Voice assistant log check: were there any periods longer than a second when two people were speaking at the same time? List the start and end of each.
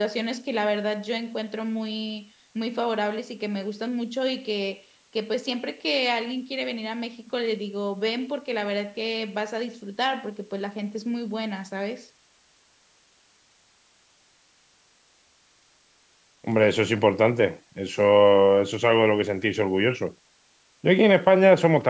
none

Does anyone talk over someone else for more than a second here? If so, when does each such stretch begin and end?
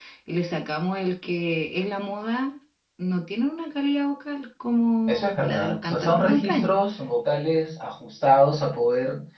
5.1-6.7

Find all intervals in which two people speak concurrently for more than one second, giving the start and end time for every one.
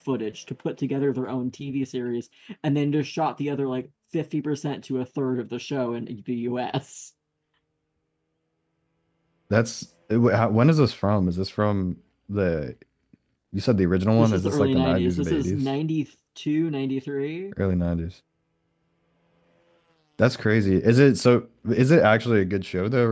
14.2-15.6

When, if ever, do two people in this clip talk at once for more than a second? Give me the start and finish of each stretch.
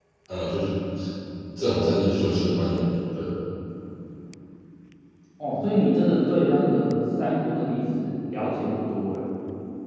none

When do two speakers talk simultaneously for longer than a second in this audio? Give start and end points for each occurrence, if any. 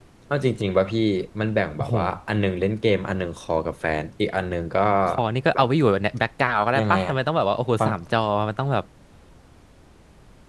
none

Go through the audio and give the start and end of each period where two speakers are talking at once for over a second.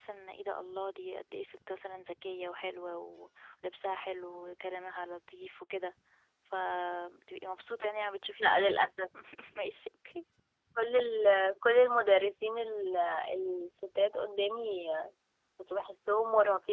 none

